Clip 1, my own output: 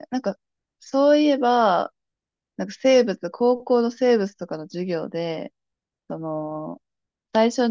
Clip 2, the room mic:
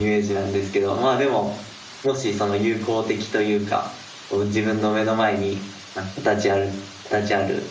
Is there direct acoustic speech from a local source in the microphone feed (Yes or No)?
Yes